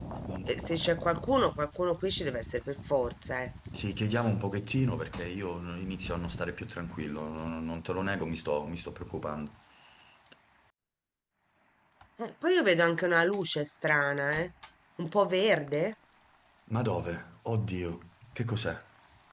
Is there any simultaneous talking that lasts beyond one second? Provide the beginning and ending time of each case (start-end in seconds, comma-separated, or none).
none